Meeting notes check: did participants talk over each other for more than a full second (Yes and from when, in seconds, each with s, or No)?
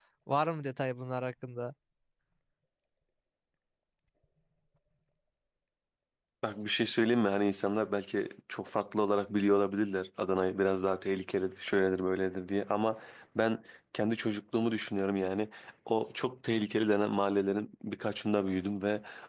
No